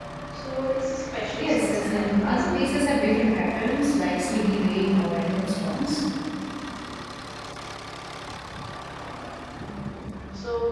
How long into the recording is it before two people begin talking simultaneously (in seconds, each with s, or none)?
1.3 s